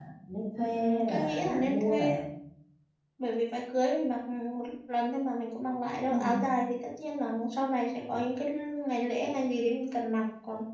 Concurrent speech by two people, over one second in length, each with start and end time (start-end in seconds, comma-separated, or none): 0.7-2.1